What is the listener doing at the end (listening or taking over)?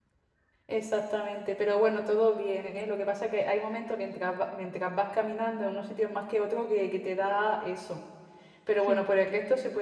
listening